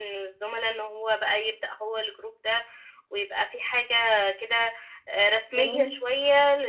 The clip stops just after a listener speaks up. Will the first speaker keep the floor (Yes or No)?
Yes